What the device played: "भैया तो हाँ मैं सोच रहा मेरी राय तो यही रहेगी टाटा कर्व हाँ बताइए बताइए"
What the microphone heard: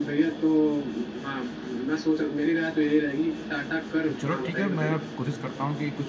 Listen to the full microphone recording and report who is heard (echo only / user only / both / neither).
both